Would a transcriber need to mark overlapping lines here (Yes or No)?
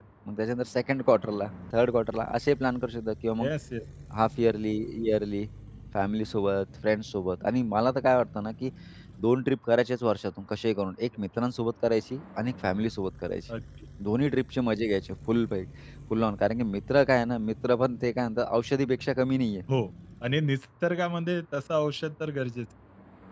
No